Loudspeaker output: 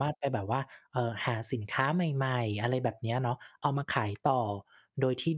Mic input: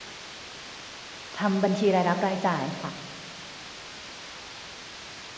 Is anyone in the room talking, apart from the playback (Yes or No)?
Yes